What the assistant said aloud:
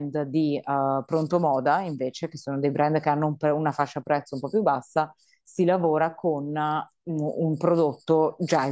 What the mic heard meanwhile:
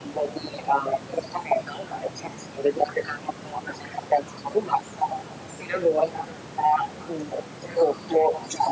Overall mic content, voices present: echo only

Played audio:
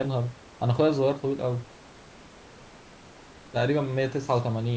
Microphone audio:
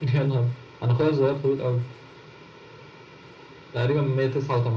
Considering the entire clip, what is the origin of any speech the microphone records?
echo only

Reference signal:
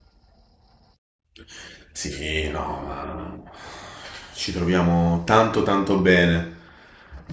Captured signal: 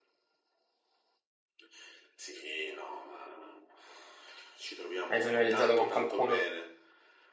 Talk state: both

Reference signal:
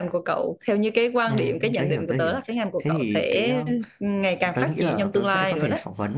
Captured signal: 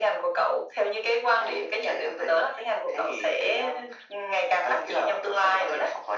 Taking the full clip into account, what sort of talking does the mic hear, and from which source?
echo only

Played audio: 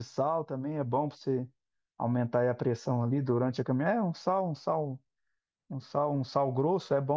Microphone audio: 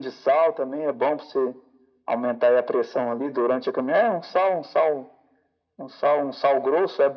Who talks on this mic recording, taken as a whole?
echo only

